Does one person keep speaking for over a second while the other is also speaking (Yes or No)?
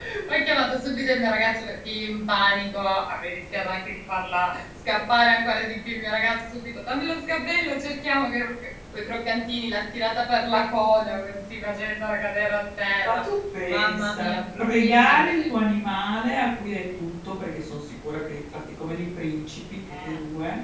Yes